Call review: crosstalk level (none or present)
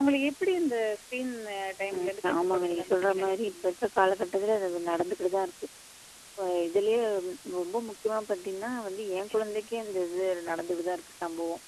present